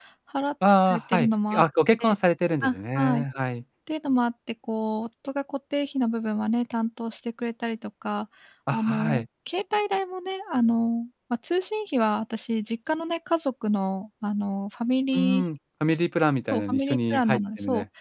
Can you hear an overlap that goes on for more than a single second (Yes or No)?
Yes